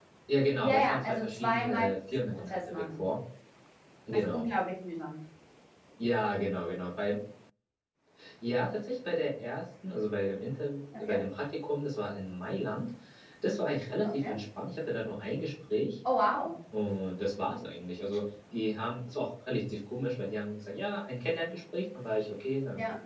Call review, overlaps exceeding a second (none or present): present